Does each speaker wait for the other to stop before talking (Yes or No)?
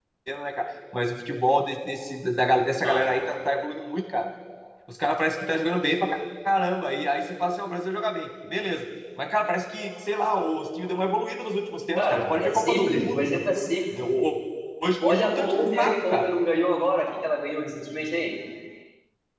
No